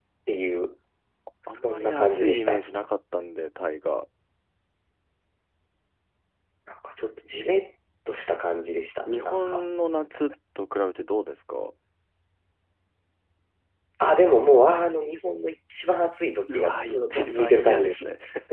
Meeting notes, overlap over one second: present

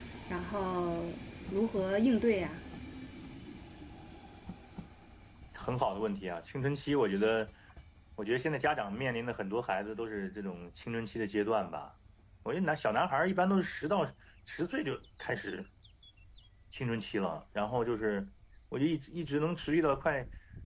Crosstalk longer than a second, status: none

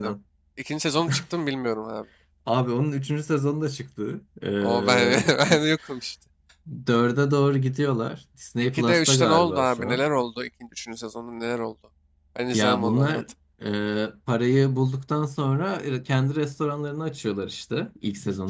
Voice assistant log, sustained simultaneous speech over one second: present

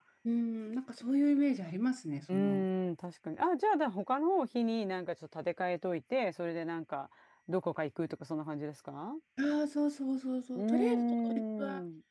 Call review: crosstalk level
present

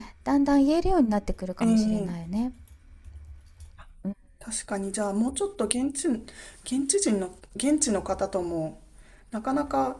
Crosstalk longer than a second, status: none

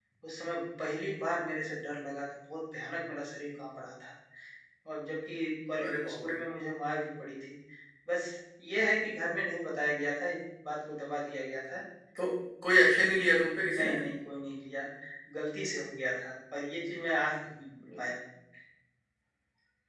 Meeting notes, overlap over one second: none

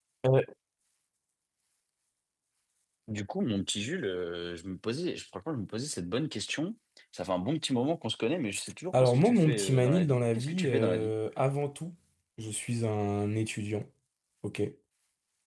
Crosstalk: present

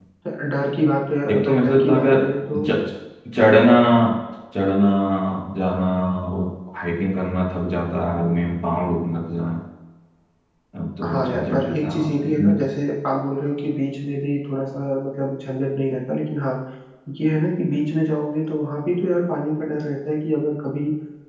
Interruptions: present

